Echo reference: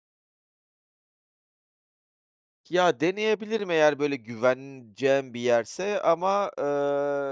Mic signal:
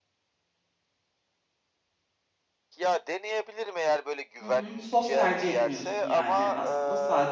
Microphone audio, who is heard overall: both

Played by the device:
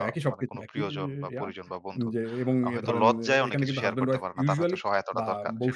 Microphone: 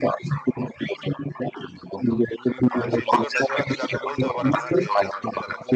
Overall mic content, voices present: both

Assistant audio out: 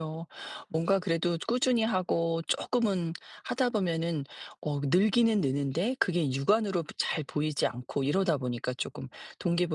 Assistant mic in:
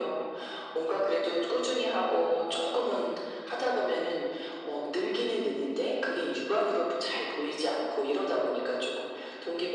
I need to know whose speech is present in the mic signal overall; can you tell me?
echo only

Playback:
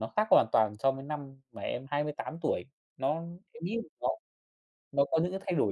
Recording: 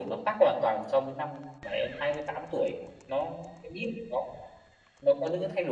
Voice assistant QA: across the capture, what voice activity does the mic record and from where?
echo only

